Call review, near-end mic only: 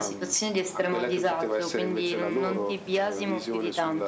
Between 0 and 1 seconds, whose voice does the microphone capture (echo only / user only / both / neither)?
echo only